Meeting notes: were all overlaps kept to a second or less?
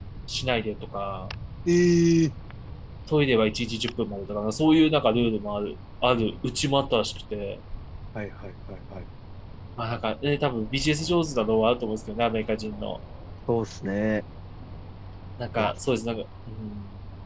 Yes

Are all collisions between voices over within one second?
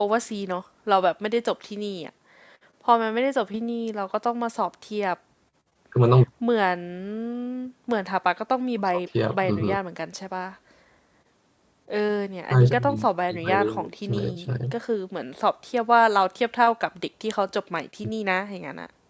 No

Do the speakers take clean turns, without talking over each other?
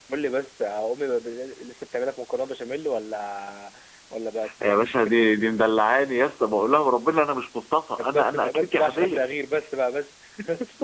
No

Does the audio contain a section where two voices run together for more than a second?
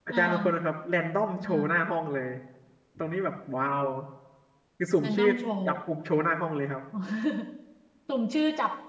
No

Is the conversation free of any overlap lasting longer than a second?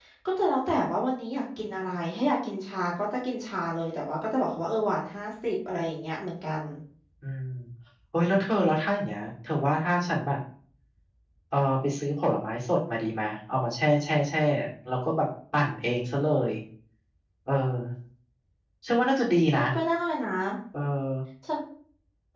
Yes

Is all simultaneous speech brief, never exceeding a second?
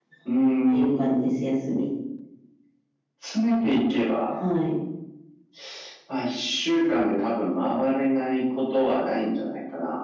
Yes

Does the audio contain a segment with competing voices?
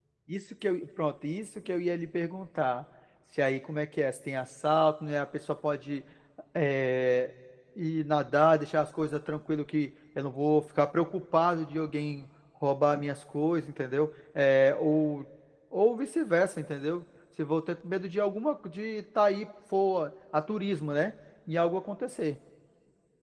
No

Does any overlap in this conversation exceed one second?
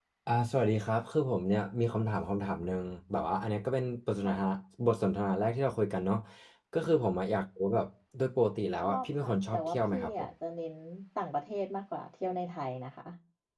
Yes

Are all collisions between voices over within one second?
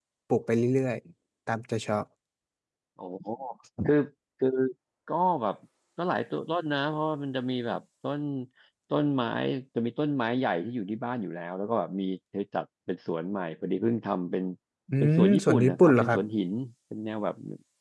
No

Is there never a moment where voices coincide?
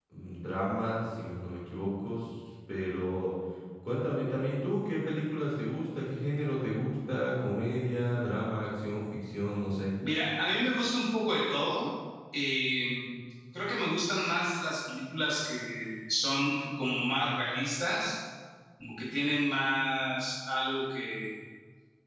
Yes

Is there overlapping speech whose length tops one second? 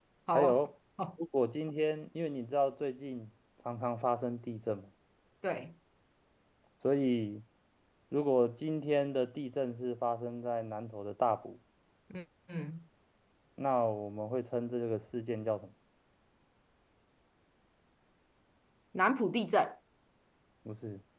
No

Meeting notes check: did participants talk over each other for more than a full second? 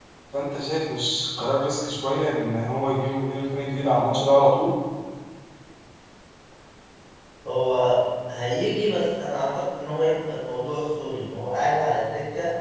No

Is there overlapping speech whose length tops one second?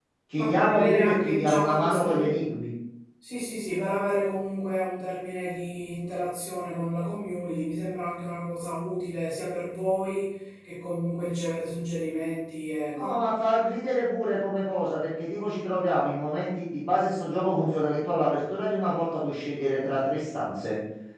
Yes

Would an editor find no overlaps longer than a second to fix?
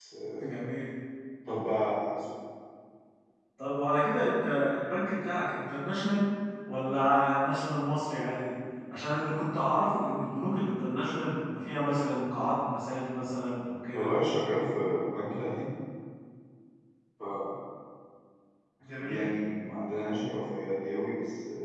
Yes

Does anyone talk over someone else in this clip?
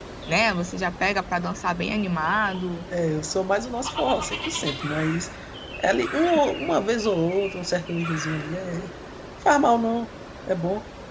No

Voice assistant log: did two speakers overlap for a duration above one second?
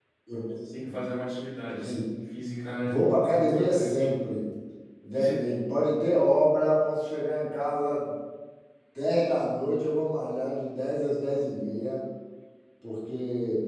Yes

